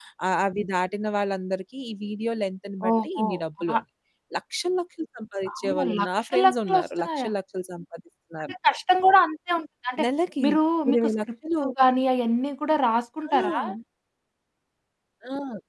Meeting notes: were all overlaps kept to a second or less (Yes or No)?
No